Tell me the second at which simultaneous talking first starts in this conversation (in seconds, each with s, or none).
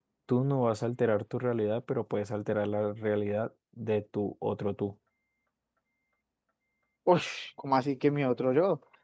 none